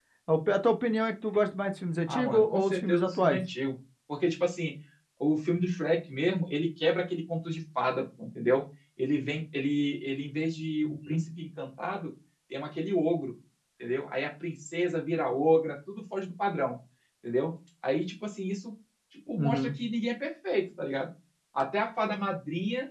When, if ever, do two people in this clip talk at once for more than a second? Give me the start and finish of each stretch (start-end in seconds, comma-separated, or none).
2.1-3.4